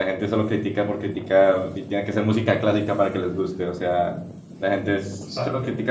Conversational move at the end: listening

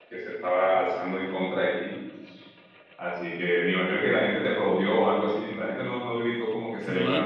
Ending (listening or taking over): taking over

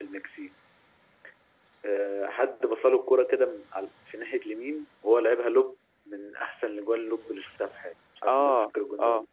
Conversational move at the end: taking over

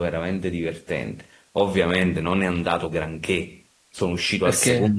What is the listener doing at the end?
listening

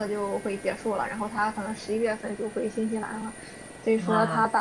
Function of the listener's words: listening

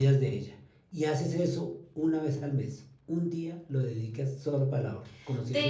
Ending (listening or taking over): taking over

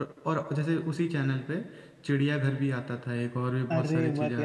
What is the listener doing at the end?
taking over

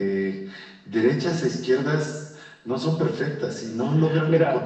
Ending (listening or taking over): listening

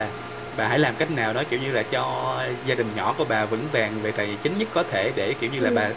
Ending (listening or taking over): listening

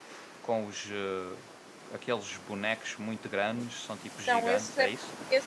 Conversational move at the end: taking over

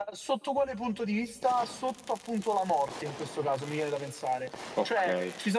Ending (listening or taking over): listening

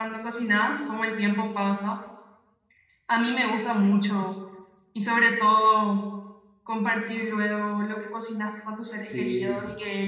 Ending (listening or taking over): listening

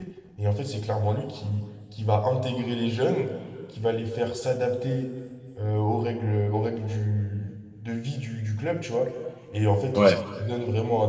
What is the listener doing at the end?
listening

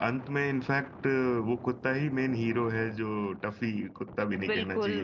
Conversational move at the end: taking over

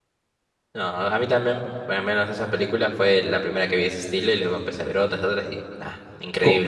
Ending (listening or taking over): taking over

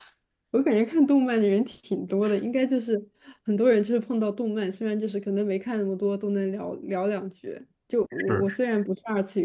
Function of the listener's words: listening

